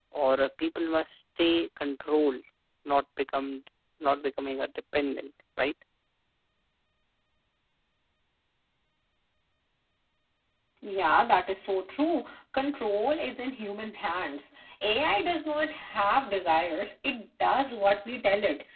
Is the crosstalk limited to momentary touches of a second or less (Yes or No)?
Yes